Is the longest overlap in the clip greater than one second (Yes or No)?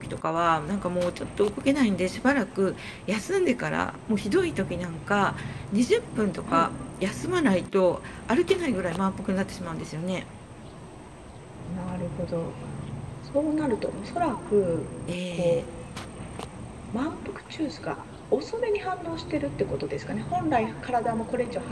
No